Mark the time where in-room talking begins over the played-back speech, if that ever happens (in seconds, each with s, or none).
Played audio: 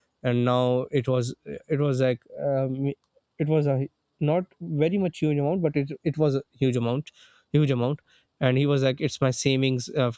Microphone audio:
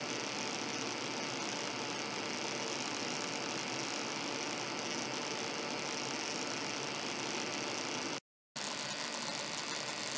none